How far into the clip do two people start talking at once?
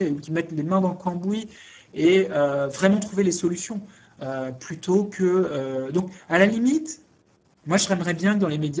none

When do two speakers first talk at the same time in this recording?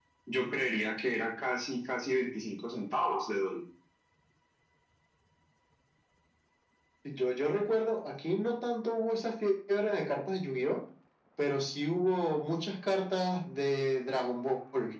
none

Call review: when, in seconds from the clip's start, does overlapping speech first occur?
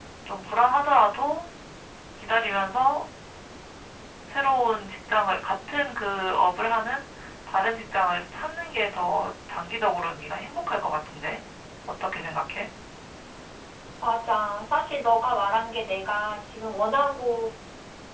none

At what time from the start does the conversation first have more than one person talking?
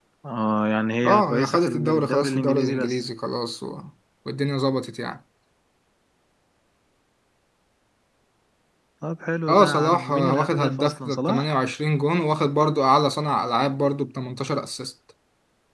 1.0 s

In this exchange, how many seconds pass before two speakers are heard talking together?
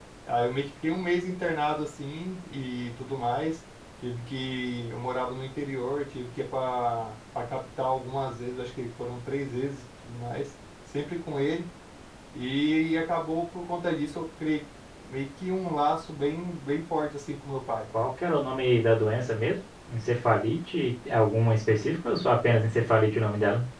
none

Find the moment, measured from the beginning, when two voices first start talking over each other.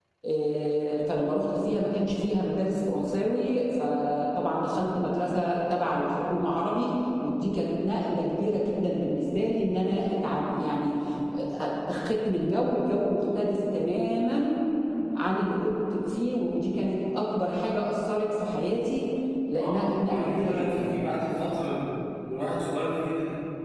19.6 s

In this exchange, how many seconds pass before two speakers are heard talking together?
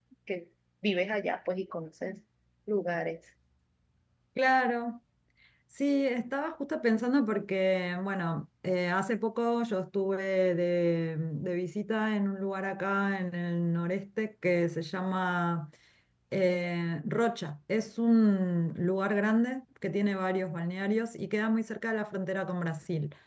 none

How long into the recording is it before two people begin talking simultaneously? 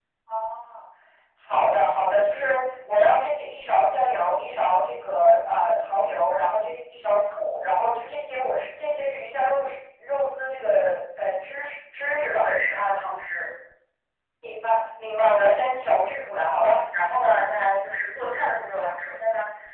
none

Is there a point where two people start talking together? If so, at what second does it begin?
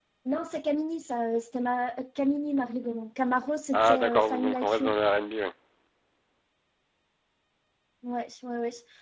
3.7 s

